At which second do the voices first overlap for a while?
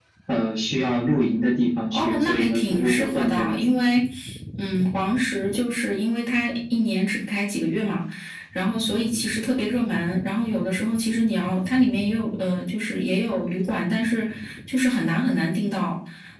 2 s

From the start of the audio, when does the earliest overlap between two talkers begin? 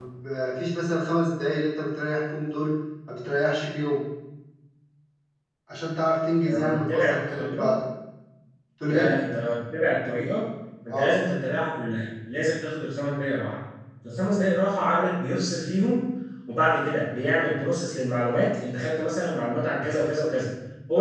6 s

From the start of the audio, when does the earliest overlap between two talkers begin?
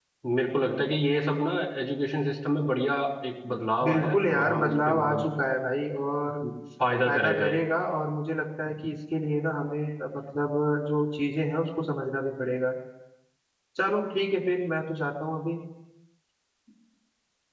4 s

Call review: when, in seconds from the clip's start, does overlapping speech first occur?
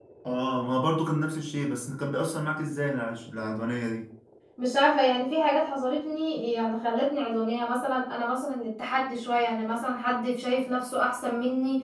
none

